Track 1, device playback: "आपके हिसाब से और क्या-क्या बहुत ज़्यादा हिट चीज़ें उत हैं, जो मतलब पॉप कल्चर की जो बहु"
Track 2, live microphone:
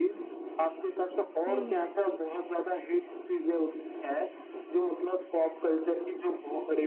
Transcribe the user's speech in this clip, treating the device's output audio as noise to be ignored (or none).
हुँ, हुँ।